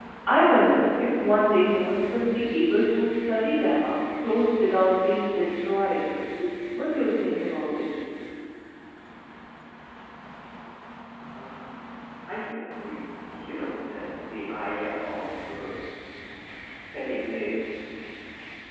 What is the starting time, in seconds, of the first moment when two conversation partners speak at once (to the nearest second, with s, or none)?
none